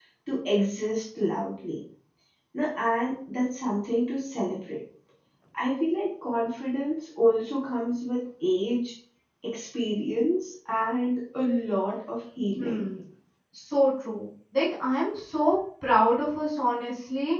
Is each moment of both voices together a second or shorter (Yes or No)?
Yes